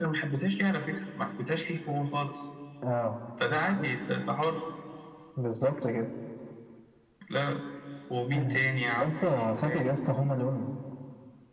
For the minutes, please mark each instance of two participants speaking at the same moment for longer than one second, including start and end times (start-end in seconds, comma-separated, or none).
8.3-9.9